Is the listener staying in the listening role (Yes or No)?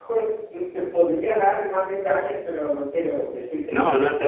No